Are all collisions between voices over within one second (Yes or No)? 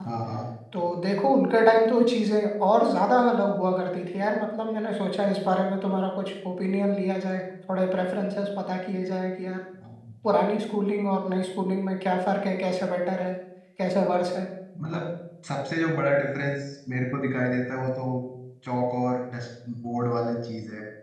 Yes